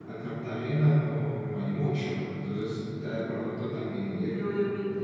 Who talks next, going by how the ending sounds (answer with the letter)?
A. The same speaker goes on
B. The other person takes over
B